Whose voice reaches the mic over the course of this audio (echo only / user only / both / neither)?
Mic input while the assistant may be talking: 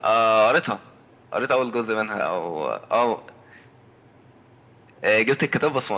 echo only